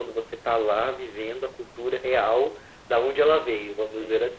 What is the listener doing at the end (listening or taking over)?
taking over